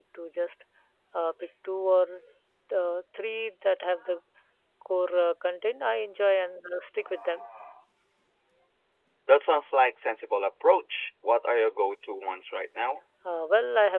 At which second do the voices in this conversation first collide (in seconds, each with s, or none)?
none